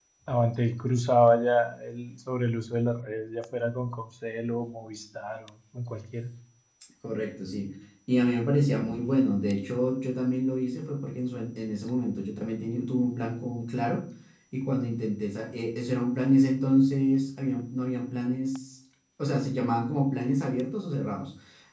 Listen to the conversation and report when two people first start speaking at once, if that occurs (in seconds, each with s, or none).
none